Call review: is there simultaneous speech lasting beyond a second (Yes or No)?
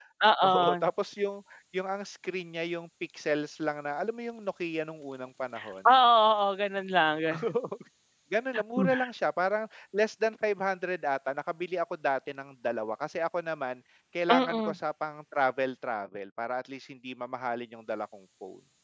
No